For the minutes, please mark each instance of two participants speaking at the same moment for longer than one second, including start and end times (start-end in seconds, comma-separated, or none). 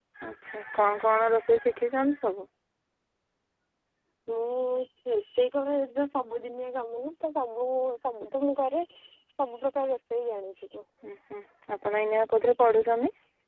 none